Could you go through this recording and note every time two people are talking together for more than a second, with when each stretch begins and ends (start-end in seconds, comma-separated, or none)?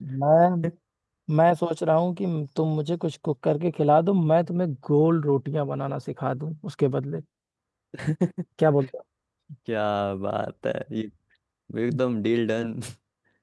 none